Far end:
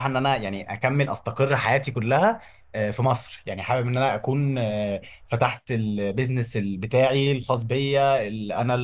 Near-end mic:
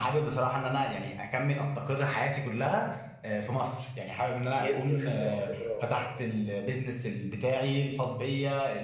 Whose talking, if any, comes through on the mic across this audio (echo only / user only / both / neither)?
both